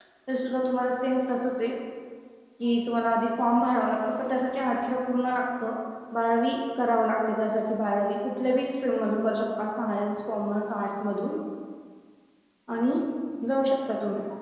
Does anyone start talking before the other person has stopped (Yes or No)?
No